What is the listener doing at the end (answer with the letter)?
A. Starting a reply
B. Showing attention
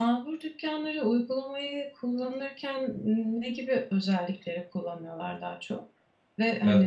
B